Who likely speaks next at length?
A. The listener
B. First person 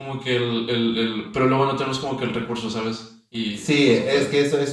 A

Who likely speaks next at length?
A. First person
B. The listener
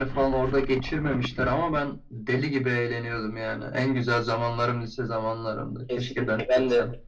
B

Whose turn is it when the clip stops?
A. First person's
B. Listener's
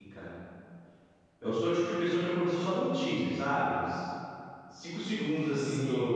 A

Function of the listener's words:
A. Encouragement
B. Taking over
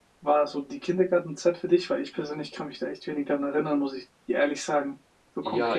B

